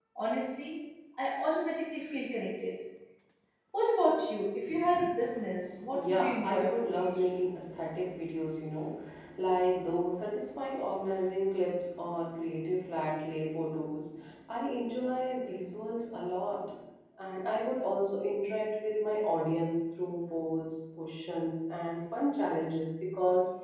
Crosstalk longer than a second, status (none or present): present